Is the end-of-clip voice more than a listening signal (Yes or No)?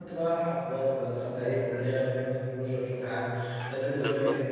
No